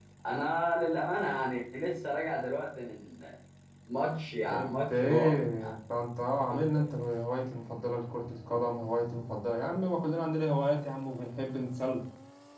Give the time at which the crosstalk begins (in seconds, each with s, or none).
4.5 s